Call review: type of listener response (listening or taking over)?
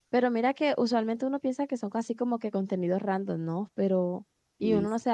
listening